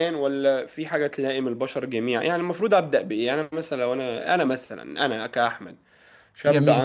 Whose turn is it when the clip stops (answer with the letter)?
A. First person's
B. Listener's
A